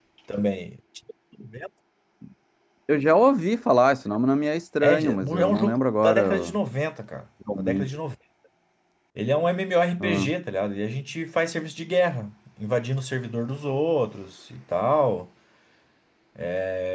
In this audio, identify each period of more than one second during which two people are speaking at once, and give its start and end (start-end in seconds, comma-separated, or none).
4.8-6.6